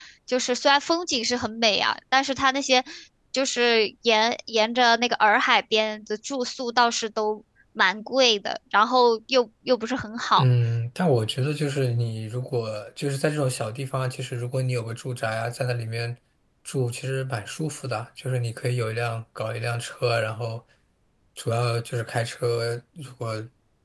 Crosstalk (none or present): none